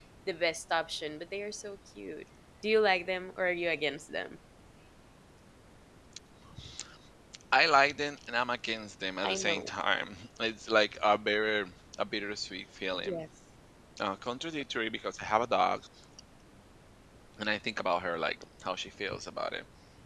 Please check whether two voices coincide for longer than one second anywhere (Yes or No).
No